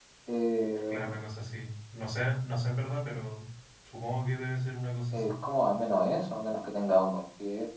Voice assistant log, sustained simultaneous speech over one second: none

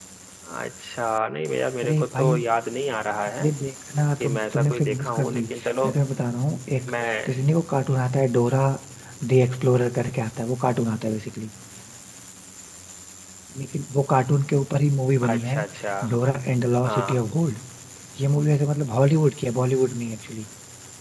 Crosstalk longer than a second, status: present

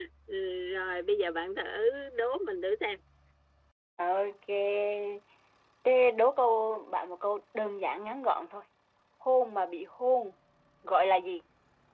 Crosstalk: none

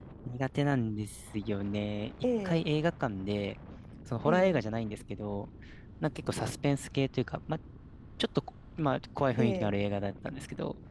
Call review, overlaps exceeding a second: none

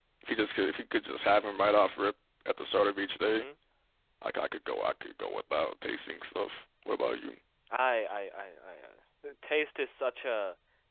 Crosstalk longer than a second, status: none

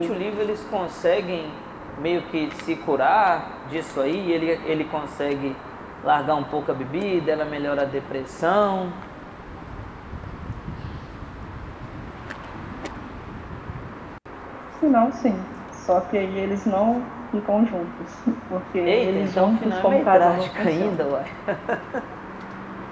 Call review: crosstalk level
present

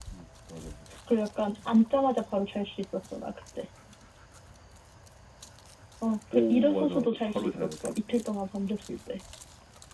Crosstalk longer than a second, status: present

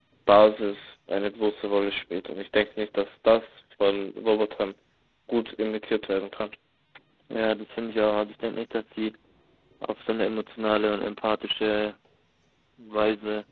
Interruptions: none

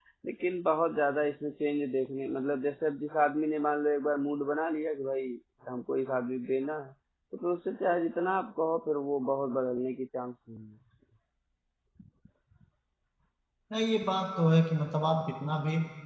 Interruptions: none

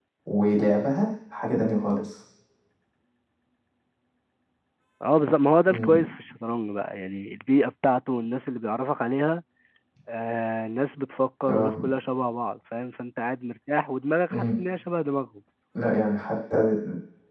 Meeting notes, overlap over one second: none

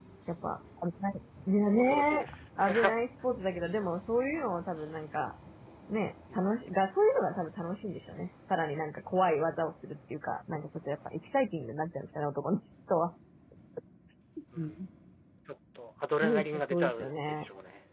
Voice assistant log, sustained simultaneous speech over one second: present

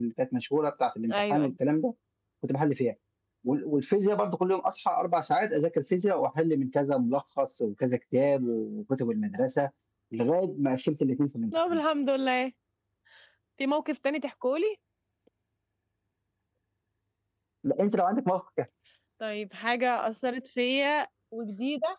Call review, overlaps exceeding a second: none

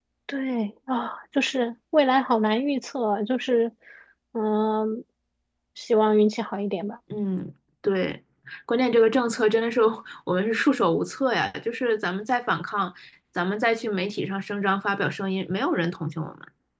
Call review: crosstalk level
none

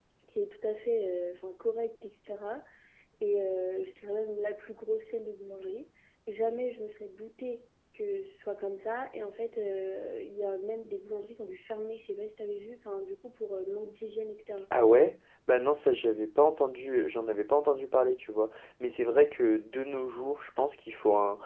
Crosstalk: none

